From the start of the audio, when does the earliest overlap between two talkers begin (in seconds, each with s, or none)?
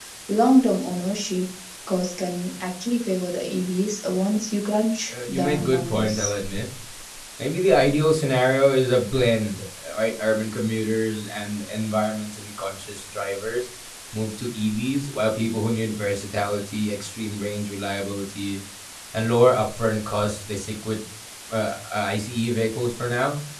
5.1 s